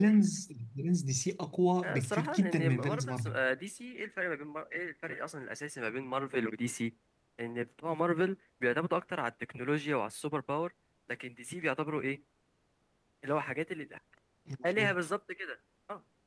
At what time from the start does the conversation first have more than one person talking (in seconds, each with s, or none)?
1.8 s